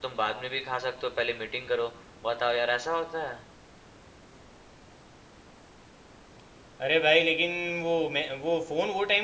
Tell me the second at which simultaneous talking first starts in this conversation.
none

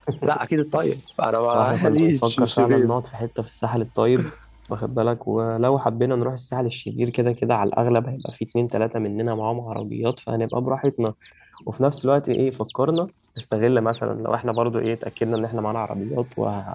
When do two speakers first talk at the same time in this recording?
1.5 s

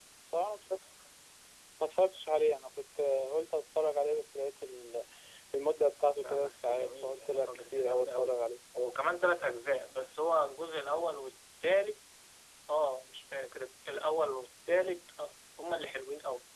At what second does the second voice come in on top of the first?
6.2 s

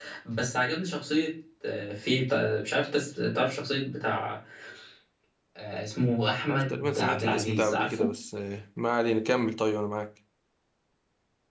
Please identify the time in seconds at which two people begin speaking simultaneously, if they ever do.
6.5 s

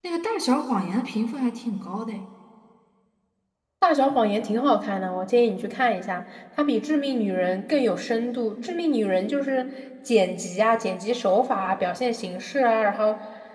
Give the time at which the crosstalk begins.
none

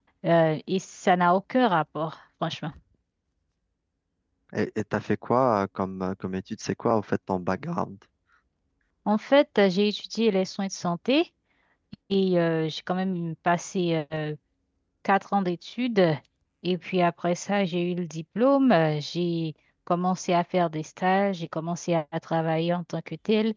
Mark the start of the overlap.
none

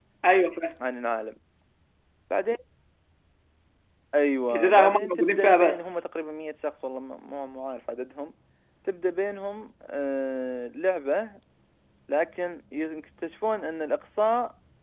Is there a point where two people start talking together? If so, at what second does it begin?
4.5 s

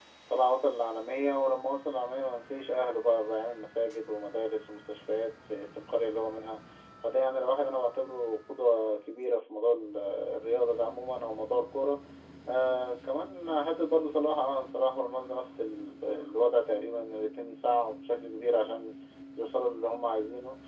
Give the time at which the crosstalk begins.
none

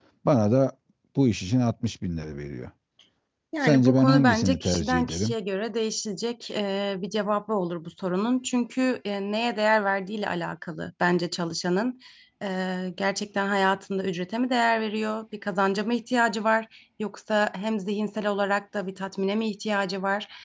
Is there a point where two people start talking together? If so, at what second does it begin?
3.6 s

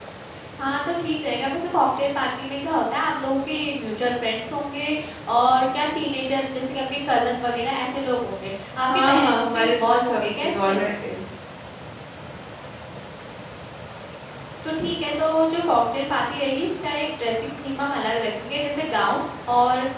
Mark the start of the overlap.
8.9 s

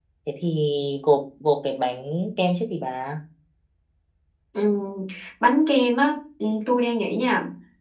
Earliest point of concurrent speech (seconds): none

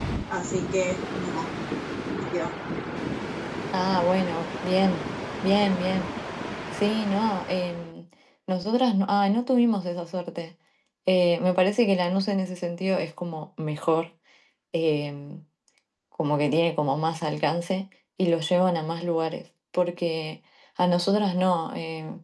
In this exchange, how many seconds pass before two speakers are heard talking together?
none

